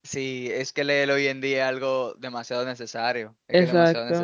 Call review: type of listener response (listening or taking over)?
taking over